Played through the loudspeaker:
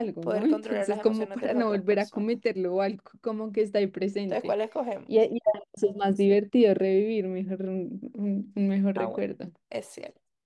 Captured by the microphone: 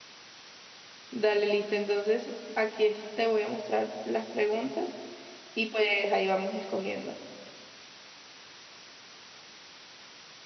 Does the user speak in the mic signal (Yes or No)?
Yes